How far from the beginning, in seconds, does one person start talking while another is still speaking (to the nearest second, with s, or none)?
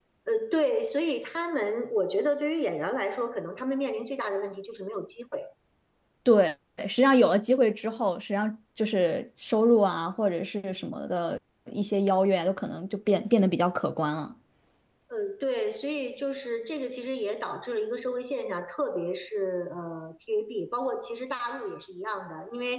none